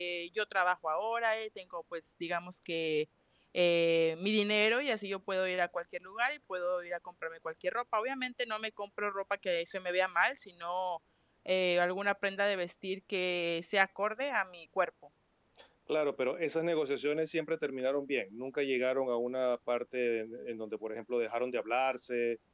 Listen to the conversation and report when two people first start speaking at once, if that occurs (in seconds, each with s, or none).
none